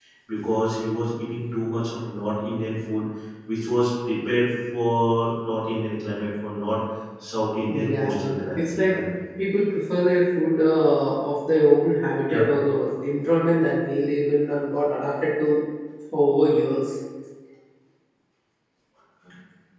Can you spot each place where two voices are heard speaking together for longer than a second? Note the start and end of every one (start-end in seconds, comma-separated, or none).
7.6-8.9